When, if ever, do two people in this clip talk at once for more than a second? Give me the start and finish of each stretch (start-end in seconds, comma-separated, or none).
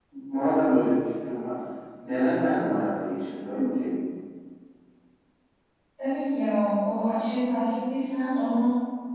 none